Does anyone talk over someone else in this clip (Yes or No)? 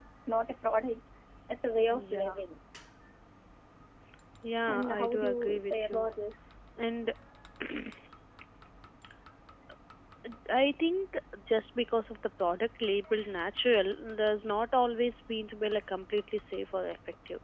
Yes